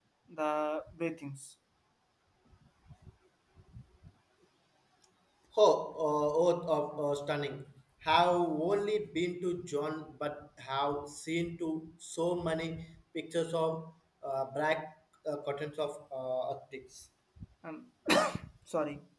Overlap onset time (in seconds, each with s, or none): none